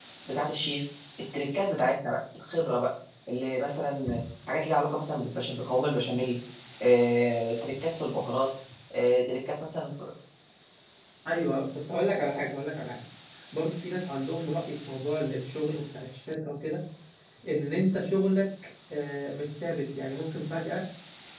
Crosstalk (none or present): none